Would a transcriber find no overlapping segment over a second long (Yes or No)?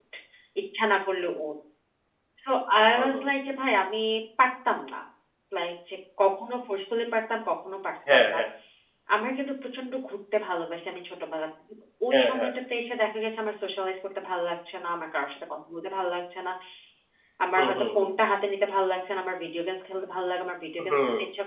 Yes